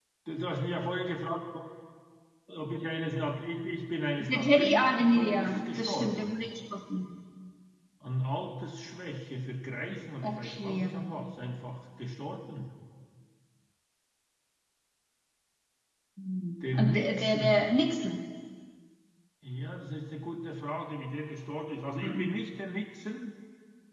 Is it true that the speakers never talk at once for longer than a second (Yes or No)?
No